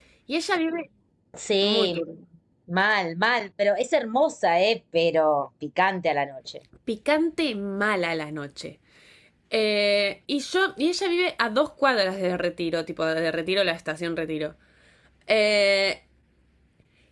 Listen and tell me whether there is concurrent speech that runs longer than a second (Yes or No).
No